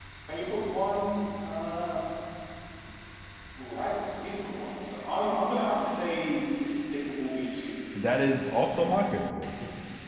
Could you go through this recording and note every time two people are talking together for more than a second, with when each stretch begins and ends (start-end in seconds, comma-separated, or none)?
none